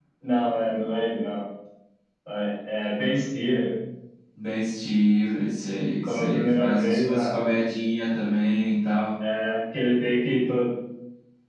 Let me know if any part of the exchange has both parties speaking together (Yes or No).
Yes